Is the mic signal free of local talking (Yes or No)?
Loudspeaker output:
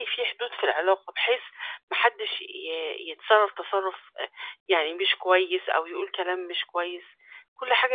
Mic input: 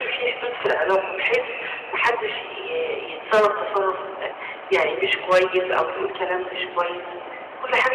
Yes